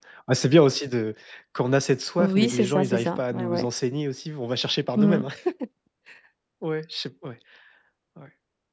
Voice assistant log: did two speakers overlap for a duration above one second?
Yes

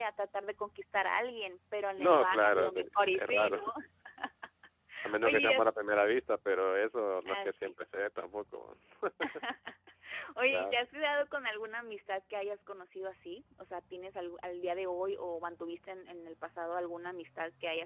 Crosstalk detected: Yes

